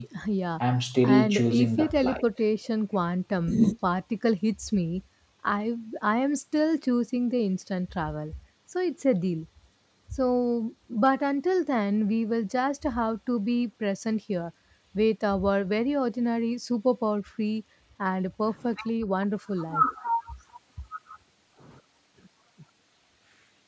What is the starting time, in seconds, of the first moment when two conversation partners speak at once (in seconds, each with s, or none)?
1.0 s